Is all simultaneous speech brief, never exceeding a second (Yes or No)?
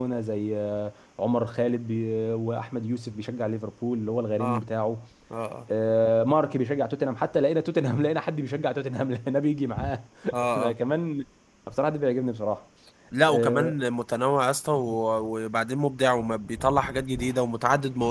Yes